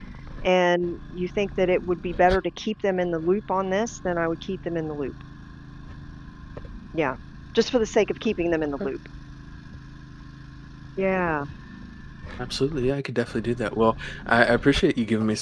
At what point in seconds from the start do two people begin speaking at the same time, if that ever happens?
none

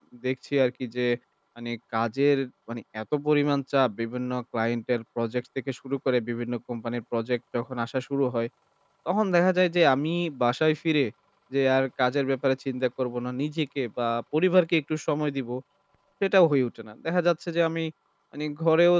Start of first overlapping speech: none

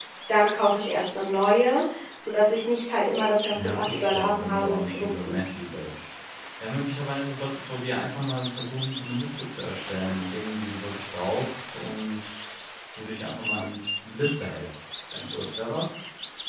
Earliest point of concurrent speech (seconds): 3.5 s

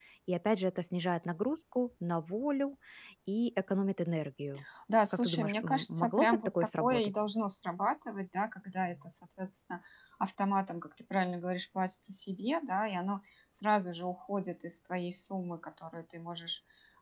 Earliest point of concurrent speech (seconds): 5.1 s

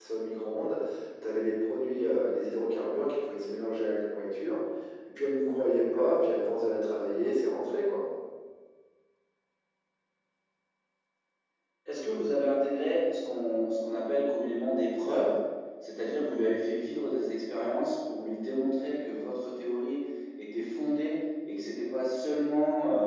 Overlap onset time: none

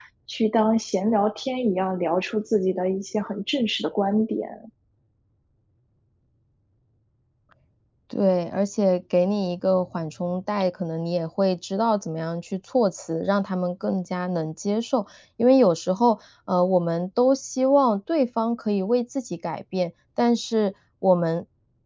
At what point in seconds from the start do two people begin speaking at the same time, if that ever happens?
none

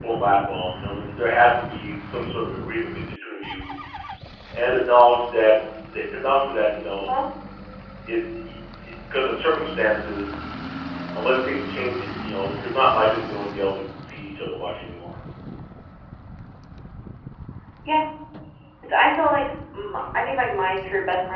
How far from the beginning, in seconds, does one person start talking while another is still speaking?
none

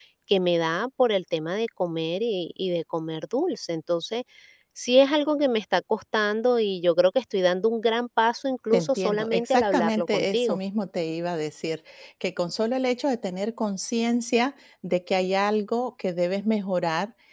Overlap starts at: 8.7 s

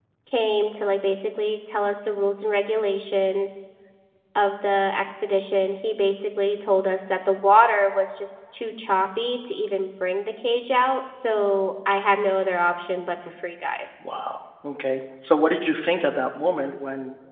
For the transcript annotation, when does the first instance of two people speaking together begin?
none

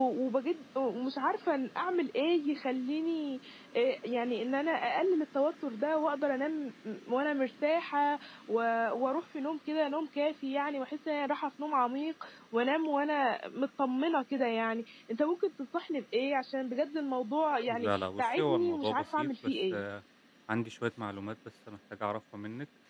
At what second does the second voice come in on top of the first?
17.7 s

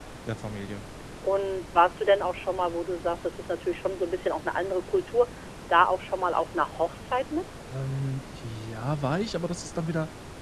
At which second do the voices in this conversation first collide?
none

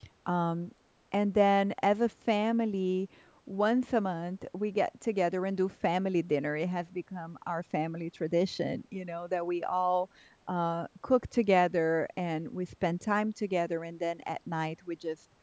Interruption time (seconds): none

